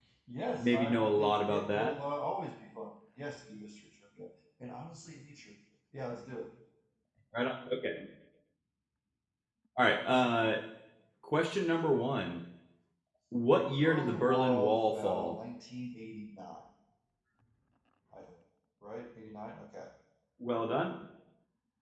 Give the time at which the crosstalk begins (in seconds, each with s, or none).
0.6 s